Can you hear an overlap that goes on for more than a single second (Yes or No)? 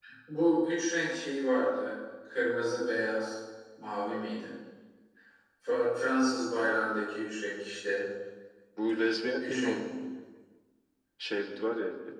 No